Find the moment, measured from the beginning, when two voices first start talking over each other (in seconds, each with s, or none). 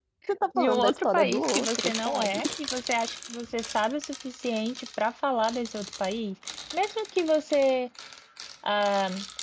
0.6 s